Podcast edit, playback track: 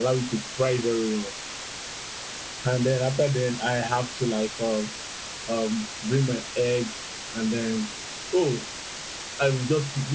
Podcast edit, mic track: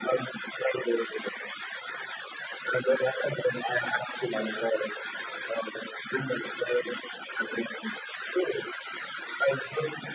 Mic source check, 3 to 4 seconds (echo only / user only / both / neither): echo only